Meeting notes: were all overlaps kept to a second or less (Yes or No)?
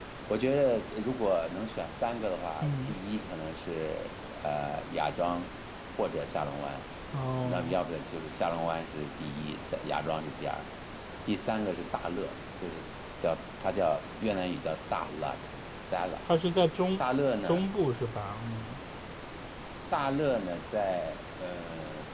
Yes